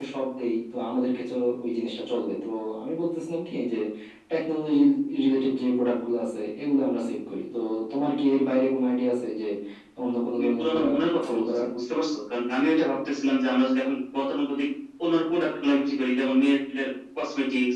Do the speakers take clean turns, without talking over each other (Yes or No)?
No